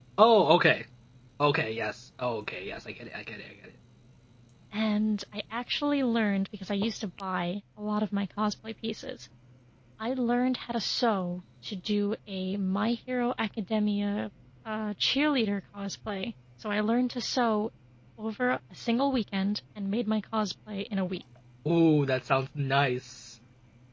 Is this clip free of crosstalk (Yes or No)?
Yes